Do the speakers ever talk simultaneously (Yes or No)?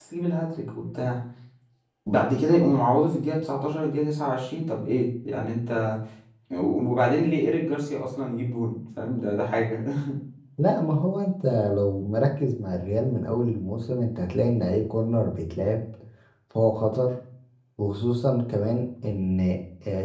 No